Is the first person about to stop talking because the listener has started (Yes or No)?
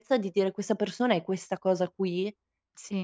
Yes